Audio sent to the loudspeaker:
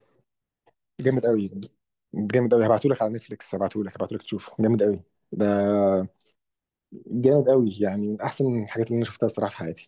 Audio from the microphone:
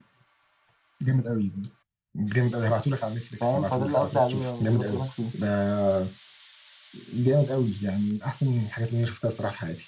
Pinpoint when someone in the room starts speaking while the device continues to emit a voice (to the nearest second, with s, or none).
3 s